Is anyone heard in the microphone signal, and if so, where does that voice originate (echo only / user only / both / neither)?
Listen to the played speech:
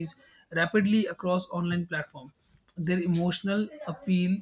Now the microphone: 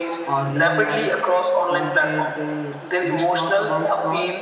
both